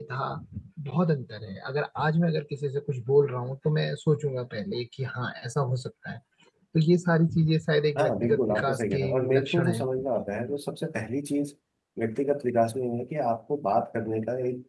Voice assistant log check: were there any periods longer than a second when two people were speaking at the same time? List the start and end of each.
8.0-9.8

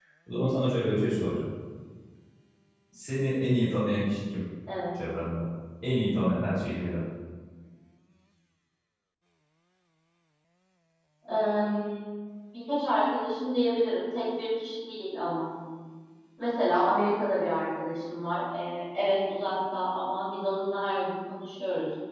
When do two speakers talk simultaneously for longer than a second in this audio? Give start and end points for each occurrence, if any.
none

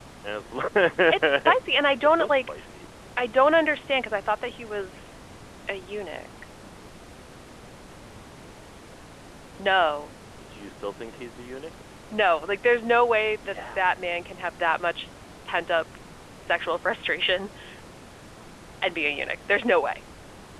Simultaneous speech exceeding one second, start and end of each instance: none

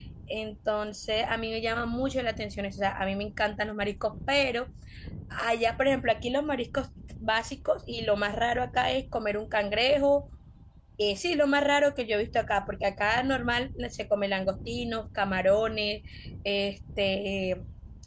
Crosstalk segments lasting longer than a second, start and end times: none

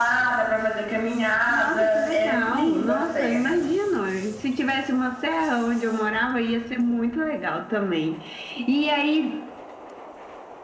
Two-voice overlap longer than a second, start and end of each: 1.5-3.7

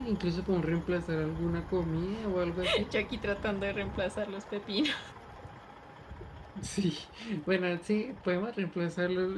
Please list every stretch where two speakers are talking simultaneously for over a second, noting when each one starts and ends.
none

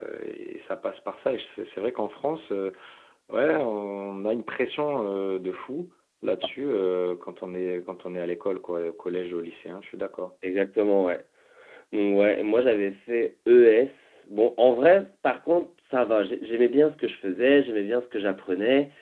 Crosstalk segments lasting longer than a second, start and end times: none

